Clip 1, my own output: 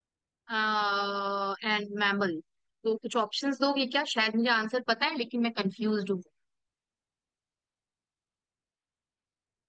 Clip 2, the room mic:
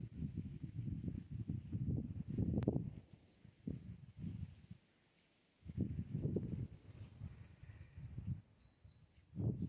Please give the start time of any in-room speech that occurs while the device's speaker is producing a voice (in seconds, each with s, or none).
none